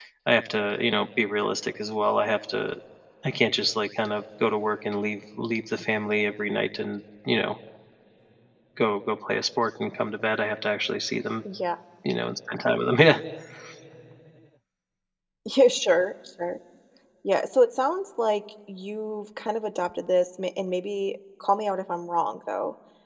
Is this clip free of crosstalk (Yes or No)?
Yes